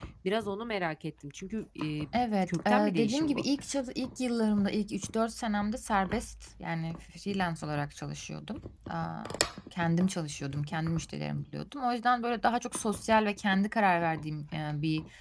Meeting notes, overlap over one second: present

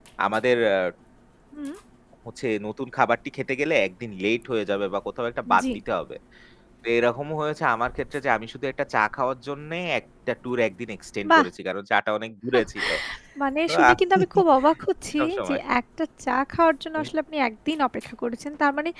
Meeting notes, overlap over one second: none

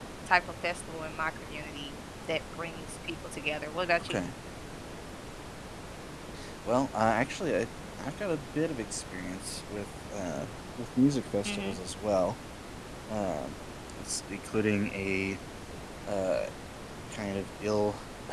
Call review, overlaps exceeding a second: none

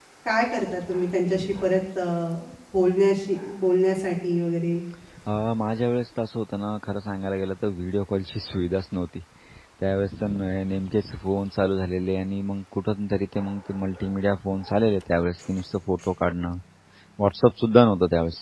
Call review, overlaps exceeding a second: none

